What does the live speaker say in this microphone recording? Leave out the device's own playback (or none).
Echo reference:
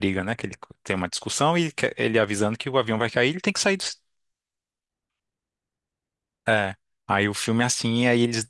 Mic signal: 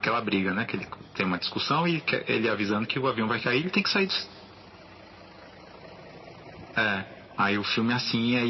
none